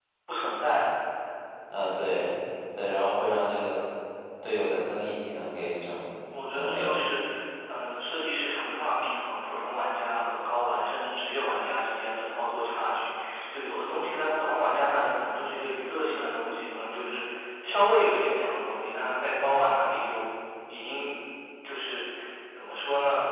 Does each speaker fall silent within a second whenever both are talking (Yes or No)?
Yes